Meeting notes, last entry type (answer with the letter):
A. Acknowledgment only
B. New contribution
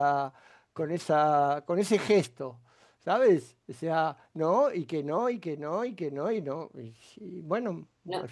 B